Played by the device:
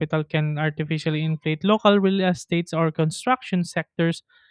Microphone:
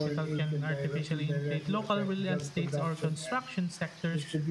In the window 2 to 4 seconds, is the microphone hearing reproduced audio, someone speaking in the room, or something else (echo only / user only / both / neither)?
both